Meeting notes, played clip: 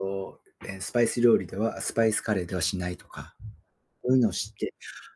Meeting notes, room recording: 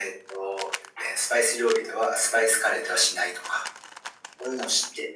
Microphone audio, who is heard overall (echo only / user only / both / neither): echo only